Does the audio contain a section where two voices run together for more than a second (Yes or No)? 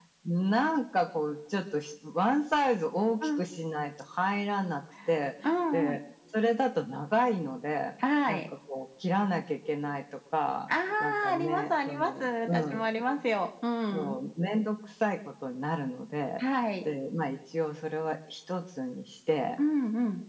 Yes